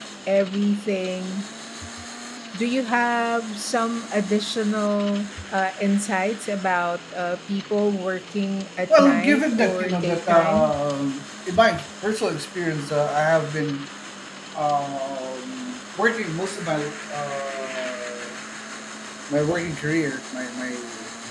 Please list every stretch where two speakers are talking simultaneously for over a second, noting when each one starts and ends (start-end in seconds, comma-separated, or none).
9.0-10.8